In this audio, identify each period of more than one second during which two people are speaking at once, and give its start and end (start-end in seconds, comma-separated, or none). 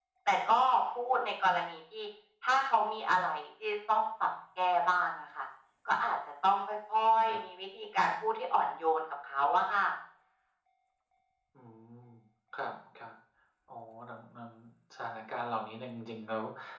none